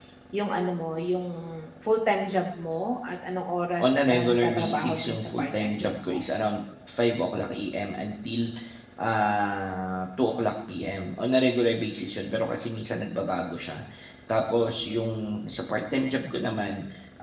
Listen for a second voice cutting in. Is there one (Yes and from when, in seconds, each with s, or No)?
Yes, from 3.8 s